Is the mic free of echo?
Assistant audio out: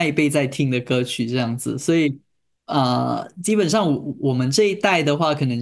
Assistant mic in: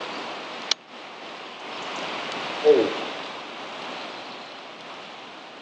Yes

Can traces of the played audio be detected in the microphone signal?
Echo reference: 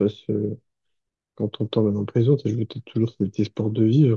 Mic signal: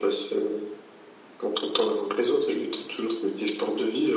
Yes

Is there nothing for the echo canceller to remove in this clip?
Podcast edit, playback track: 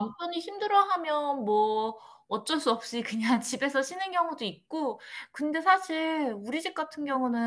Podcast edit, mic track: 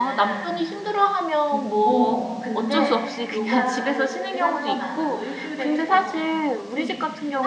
No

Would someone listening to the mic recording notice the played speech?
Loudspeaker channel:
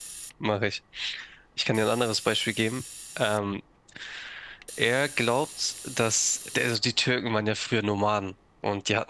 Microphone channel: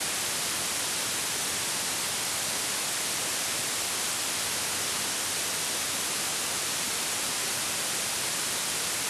No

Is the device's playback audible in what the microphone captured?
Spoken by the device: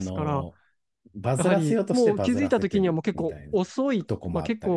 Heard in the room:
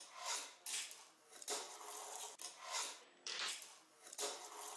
No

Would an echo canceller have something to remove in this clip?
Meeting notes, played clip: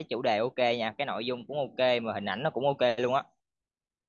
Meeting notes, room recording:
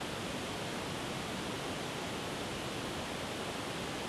No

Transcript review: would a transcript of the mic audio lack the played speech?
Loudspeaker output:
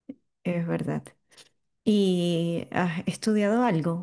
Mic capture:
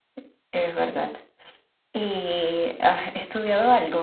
No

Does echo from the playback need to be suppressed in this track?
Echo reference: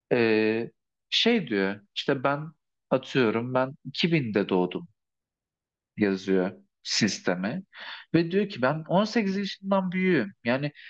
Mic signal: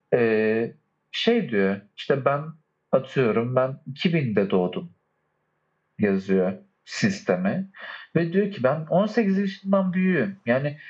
Yes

